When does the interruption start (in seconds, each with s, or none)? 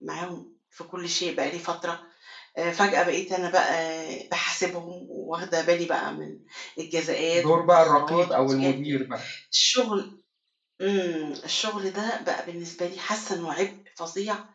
7.3 s